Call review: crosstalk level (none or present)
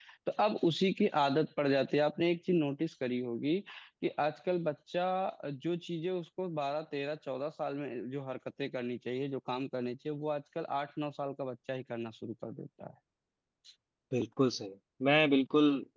none